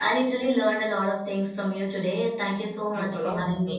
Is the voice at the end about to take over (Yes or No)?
Yes